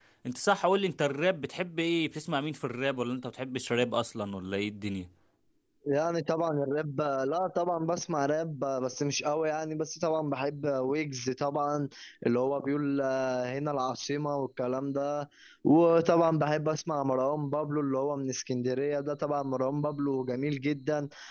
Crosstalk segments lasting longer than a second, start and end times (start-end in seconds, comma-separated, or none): none